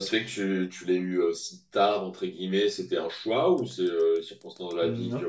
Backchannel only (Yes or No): Yes